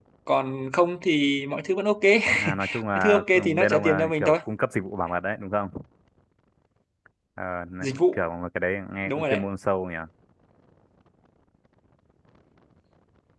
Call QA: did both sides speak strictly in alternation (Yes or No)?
No